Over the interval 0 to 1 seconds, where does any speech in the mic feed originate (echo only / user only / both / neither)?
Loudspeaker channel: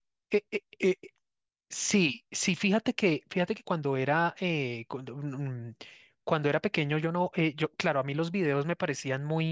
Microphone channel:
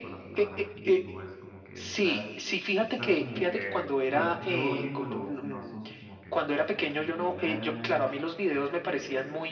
both